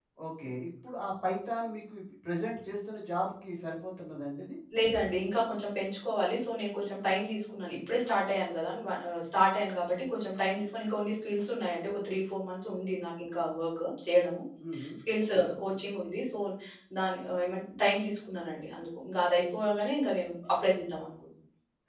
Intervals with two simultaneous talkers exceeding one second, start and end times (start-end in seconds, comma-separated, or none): none